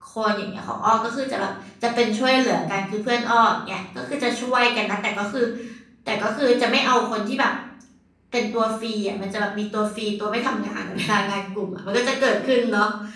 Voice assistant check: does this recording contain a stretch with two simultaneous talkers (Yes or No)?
No